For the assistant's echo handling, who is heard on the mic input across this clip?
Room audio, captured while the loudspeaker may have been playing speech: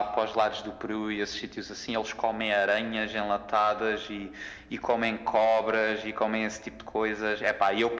echo only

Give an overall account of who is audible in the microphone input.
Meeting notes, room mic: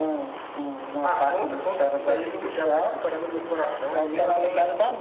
both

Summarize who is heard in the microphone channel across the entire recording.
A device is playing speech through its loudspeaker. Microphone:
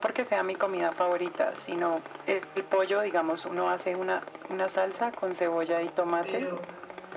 both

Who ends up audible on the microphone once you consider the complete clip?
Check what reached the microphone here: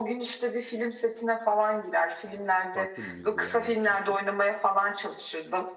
both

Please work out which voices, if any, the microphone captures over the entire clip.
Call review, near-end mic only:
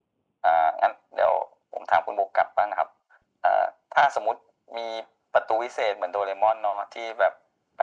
echo only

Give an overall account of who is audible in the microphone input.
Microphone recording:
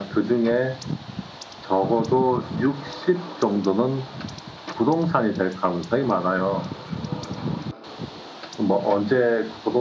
echo only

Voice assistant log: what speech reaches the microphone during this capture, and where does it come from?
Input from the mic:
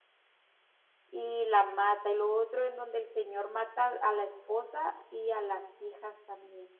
user only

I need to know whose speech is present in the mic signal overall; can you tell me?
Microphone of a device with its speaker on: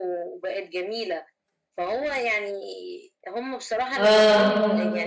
both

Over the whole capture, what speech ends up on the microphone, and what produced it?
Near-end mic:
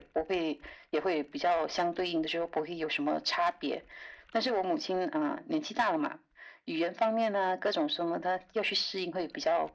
echo only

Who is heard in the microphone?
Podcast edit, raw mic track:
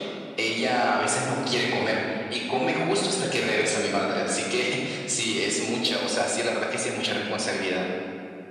echo only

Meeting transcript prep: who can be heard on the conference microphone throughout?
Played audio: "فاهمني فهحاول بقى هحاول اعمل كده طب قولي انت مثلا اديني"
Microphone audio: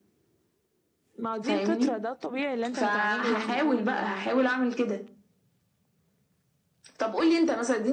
both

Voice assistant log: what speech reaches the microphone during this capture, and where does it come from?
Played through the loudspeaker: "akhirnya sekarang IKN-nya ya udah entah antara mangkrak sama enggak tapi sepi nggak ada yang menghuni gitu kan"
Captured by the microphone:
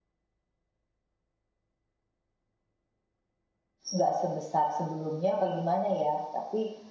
user only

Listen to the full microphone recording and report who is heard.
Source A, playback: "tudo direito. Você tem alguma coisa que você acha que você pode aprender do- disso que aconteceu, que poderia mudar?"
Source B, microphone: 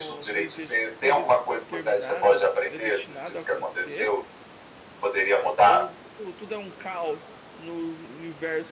both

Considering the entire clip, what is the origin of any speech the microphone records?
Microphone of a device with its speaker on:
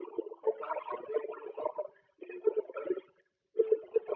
echo only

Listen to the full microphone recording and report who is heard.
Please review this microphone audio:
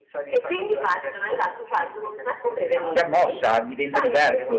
both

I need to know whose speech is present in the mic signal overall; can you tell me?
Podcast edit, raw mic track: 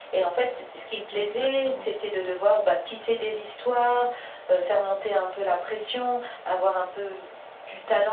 both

